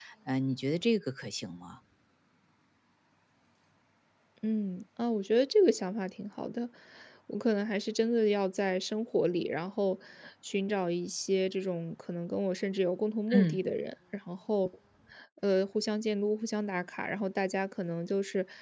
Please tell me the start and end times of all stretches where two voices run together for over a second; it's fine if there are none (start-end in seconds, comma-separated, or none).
none